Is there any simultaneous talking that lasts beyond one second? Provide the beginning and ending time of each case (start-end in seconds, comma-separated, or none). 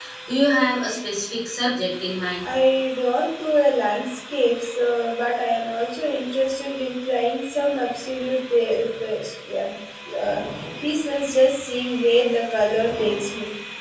none